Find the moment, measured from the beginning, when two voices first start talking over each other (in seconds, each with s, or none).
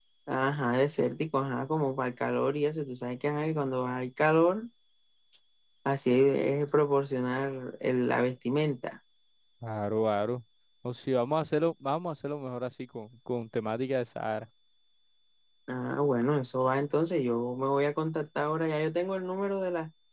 none